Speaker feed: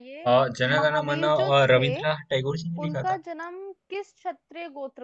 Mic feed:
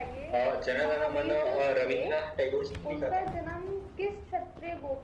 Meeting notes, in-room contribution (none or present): none